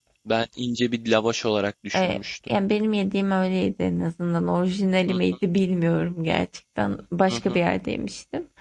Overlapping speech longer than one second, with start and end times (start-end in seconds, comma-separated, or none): none